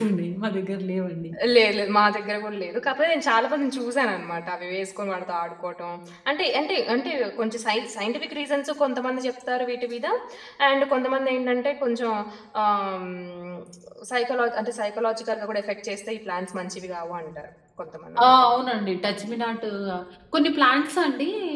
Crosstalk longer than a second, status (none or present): none